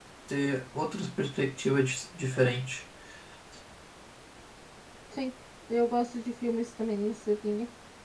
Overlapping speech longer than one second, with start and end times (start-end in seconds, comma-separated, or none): none